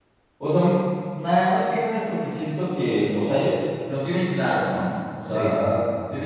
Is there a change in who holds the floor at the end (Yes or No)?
No